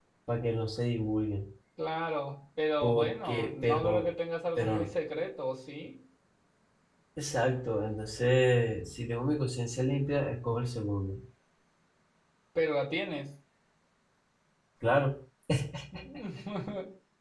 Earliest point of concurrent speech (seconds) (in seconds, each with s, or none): 2.8 s